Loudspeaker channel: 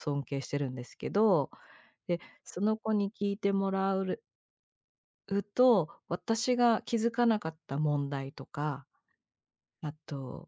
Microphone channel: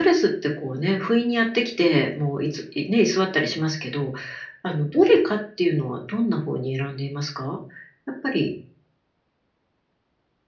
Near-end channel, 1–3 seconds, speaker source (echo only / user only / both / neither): user only